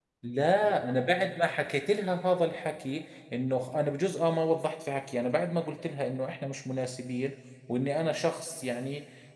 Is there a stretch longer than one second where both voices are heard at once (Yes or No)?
No